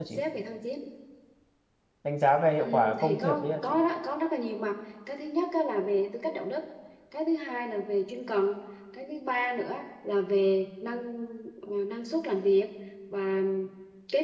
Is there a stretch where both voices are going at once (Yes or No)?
Yes